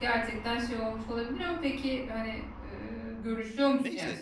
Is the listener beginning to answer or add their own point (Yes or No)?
Yes